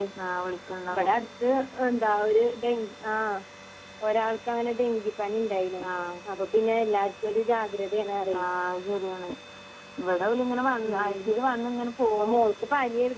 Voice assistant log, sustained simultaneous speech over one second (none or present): none